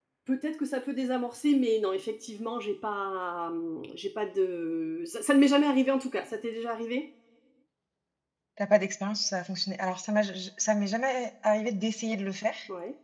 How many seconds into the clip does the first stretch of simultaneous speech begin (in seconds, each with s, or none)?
none